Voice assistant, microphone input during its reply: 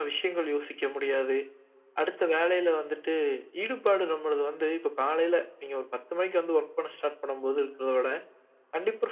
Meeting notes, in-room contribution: none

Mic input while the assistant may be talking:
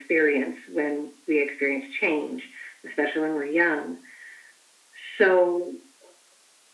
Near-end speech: none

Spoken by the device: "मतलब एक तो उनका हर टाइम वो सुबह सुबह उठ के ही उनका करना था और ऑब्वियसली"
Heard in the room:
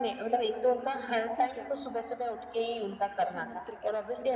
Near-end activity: present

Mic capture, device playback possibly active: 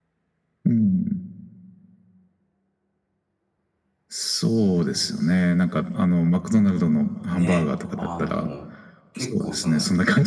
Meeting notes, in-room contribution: present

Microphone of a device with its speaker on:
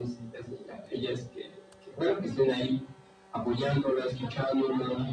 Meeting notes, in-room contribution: none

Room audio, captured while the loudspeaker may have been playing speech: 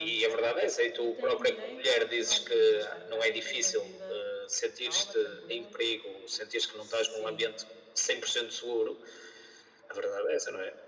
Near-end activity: present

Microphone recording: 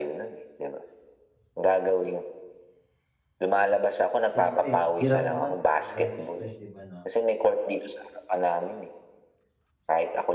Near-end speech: present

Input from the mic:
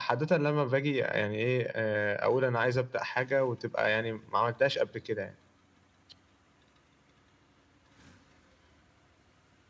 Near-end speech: none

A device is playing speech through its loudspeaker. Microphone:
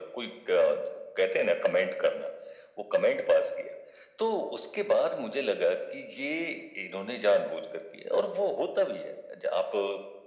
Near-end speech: none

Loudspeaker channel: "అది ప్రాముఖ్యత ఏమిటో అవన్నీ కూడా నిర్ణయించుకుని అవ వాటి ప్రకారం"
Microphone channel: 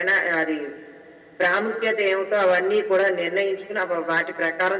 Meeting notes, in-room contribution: none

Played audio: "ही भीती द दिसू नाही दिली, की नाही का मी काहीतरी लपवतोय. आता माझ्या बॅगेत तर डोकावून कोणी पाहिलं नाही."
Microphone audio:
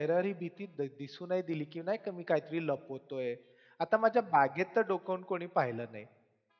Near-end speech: none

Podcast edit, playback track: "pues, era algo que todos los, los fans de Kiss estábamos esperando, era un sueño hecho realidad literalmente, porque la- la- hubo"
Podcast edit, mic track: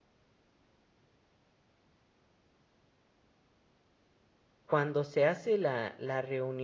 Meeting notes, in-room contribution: present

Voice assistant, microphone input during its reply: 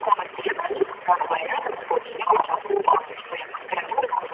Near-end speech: none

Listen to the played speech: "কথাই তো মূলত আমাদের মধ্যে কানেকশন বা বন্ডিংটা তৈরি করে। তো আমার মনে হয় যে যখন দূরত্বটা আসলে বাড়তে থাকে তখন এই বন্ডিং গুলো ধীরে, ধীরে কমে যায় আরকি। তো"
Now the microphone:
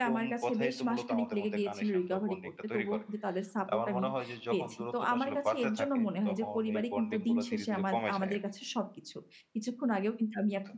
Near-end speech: present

